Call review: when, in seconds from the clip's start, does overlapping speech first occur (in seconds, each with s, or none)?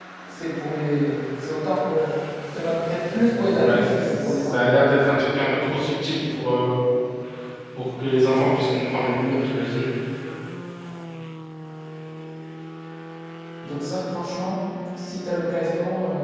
3.6 s